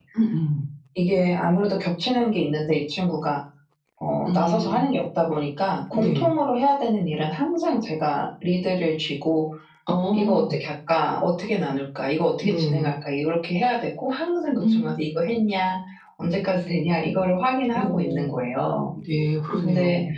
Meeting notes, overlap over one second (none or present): none